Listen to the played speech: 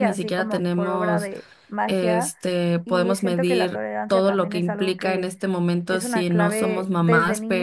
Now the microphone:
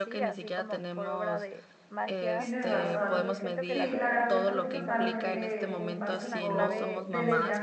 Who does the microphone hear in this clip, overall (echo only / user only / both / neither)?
both